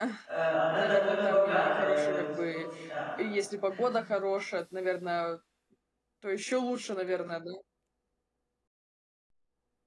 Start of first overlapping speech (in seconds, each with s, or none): 0.7 s